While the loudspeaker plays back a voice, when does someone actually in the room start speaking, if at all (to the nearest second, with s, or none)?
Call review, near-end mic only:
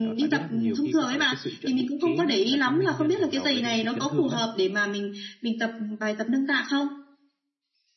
none